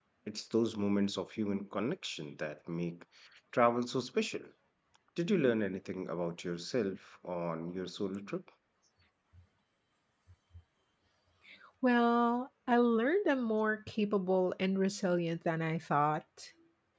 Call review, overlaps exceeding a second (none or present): none